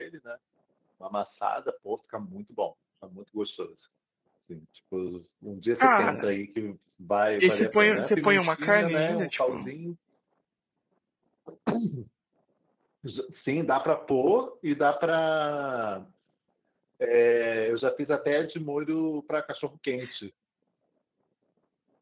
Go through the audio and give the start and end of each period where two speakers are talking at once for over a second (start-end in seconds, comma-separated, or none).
7.4-9.5